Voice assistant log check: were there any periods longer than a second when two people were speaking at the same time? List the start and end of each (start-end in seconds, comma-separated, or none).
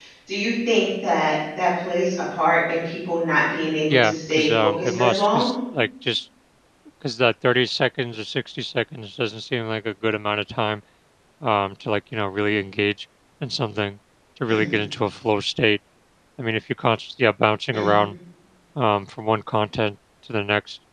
3.9-5.5